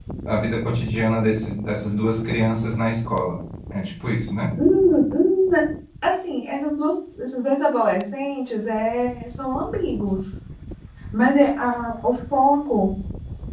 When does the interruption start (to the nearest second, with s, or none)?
none